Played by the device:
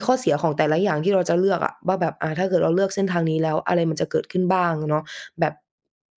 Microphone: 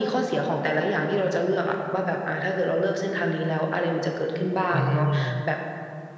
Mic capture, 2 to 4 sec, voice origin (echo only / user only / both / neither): echo only